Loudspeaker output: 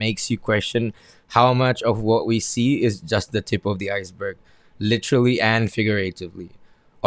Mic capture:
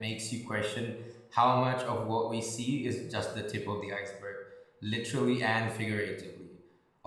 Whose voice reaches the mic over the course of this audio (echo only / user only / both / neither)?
echo only